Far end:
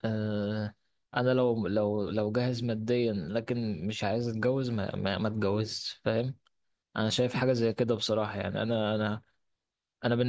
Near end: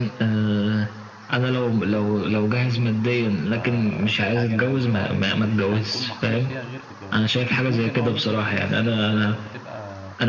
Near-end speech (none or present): present